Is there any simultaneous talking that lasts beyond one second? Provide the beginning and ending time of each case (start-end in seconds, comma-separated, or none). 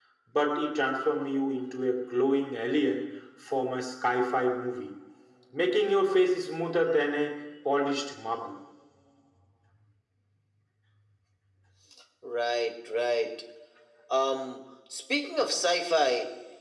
none